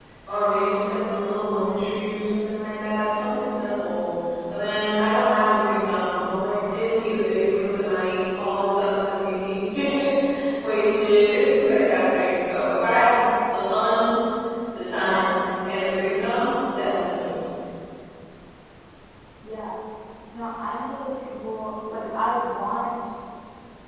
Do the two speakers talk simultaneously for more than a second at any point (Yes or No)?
No